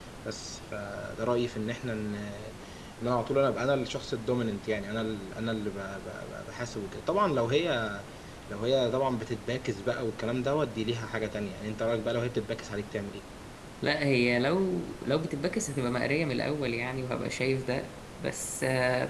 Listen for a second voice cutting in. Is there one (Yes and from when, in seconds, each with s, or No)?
No